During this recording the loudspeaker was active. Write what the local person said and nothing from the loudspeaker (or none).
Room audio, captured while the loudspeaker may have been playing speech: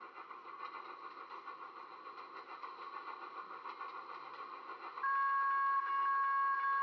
none